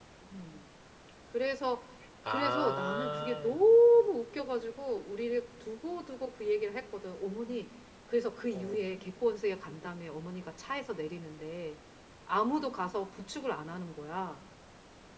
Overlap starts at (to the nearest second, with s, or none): 2 s